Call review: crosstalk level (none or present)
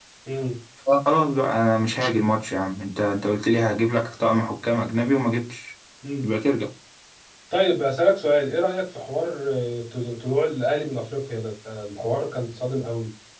none